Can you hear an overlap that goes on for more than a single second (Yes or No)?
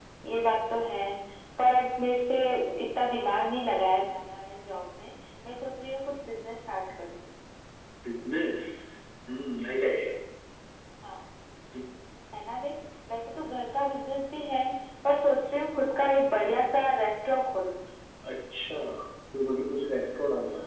No